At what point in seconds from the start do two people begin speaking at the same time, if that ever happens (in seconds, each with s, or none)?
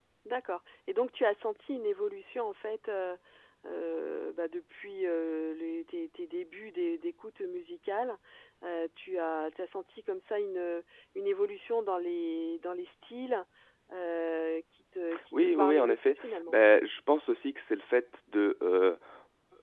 15.1 s